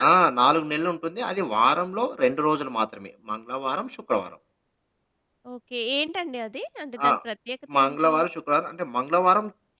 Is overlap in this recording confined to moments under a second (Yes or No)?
Yes